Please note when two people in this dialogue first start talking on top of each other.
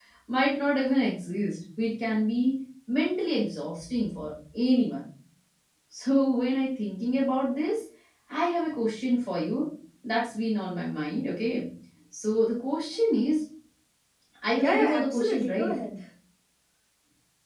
14.6 s

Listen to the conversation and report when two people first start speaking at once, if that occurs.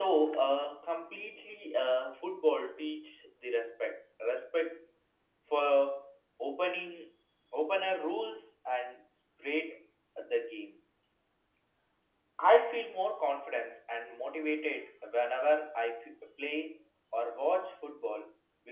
none

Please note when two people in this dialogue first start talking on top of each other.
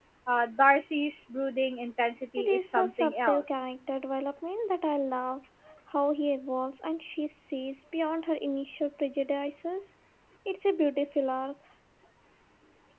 2.4 s

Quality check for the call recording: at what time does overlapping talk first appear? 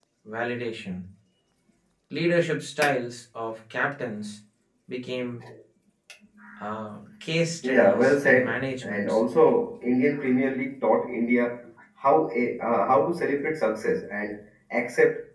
7.6 s

